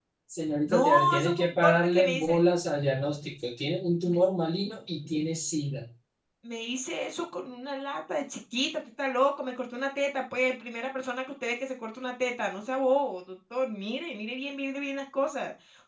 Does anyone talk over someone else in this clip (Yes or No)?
Yes